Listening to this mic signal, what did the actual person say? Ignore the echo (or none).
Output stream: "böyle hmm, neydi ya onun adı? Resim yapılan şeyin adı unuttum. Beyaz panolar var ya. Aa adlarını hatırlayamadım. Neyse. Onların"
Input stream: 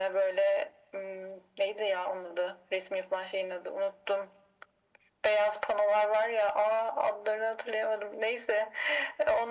none